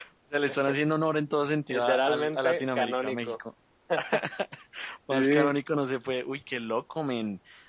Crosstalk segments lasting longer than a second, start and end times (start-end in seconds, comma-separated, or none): 1.7-3.4